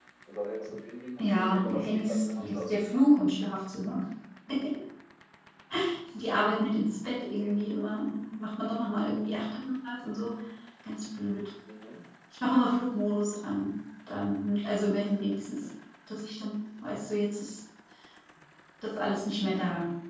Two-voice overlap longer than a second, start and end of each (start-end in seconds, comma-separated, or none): 1.2-2.7